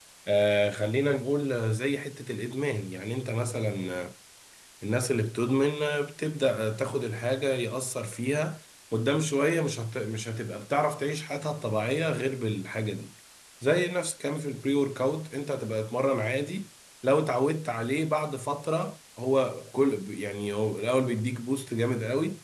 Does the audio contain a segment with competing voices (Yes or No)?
No